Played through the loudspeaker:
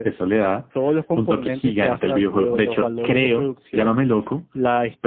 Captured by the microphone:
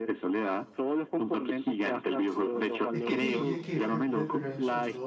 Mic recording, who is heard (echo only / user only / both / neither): both